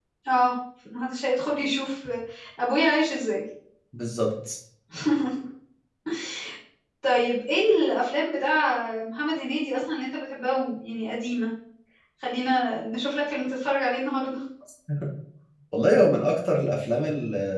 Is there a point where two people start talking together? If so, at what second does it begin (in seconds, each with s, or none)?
none